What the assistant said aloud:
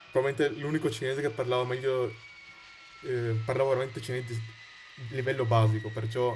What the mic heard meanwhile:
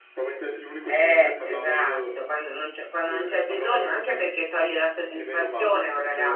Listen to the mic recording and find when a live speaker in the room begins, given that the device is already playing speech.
0.8 s

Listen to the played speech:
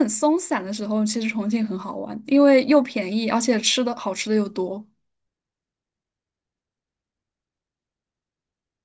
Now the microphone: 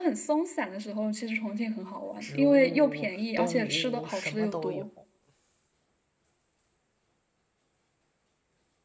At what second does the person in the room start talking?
2.2 s

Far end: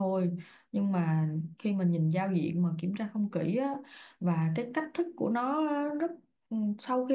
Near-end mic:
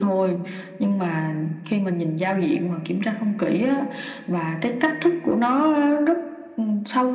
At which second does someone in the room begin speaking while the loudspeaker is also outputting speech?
none

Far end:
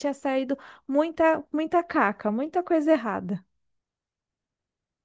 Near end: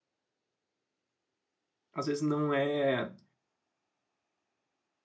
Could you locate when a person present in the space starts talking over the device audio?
1.9 s

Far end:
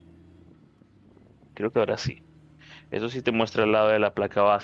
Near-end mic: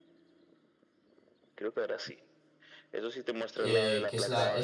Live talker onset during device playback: 3.5 s

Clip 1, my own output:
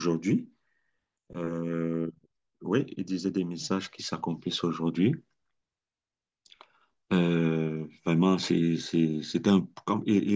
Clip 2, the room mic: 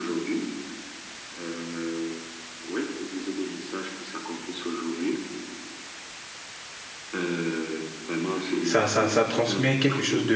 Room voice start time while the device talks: 8.6 s

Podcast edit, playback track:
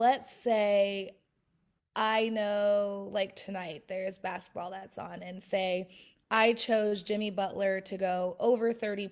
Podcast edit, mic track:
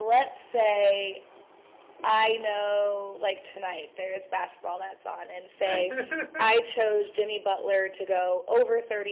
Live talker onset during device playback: 5.6 s

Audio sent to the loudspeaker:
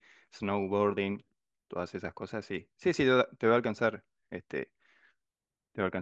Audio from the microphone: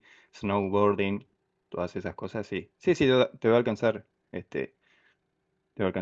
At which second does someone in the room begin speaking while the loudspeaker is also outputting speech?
none

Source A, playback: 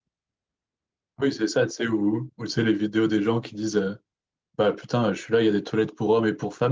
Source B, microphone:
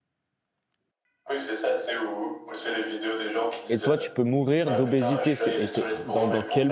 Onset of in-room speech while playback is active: 3.7 s

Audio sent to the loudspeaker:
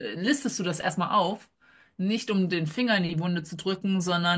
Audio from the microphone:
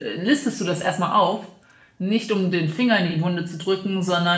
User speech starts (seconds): none

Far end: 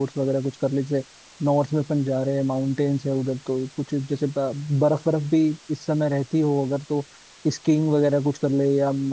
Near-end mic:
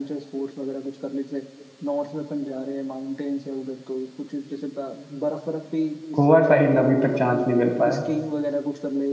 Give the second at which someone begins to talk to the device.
6.1 s

